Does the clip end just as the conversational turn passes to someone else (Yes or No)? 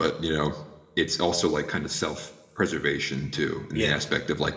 No